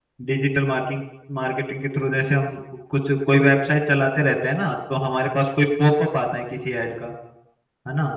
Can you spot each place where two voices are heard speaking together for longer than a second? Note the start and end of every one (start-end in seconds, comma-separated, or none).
none